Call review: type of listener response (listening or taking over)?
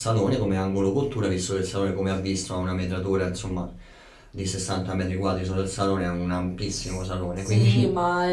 taking over